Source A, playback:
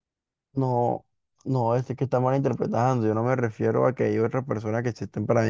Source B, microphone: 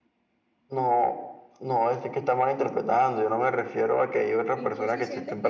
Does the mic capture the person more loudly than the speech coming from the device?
No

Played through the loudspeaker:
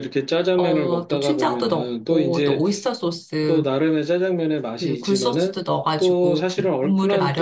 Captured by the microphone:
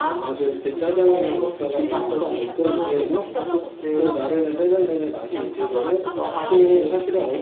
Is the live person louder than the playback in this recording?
No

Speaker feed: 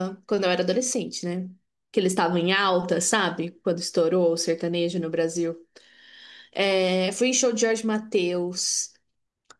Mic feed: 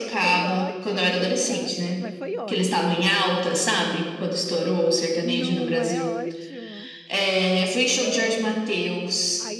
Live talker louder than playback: No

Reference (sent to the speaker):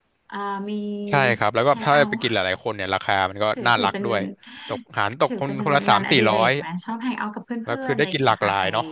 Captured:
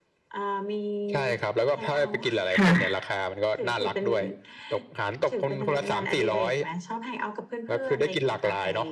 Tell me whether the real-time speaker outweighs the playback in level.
Yes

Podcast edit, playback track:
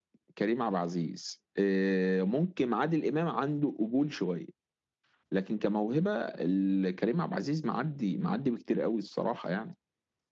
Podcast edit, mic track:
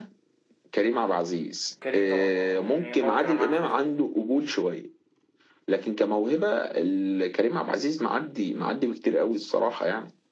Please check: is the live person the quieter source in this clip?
Yes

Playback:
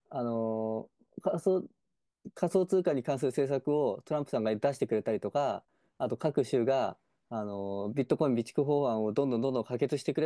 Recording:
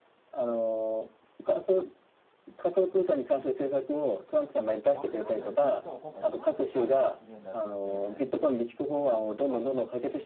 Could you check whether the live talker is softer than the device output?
Yes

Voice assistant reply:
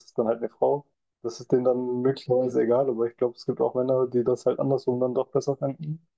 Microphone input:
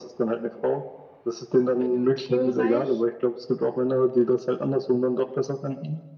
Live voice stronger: No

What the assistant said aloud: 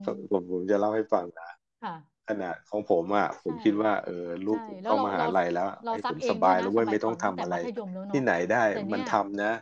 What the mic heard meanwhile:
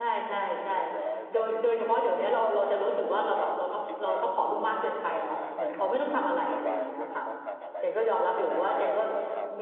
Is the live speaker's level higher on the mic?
Yes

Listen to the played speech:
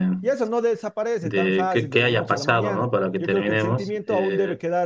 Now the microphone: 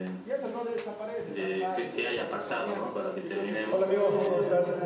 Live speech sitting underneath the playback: No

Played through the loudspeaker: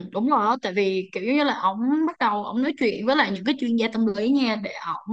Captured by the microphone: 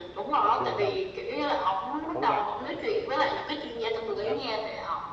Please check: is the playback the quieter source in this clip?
No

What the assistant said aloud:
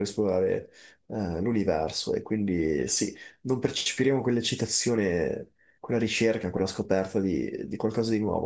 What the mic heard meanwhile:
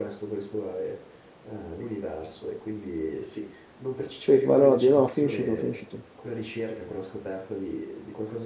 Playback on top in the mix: No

